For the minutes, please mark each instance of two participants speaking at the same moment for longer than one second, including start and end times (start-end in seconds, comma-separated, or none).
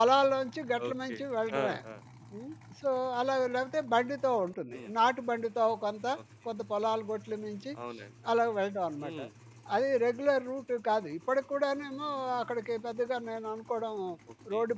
none